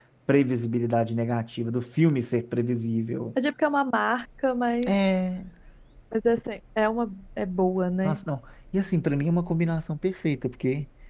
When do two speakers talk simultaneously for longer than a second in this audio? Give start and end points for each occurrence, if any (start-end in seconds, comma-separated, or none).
none